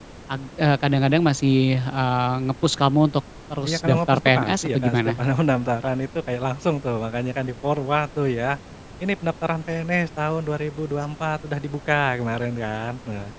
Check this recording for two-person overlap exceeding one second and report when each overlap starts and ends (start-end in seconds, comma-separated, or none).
3.6-5.2